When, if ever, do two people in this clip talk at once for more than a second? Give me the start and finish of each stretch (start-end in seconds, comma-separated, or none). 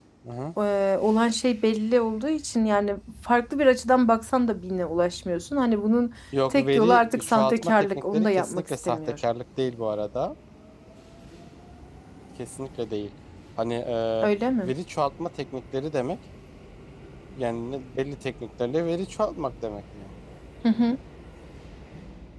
6.5-9.0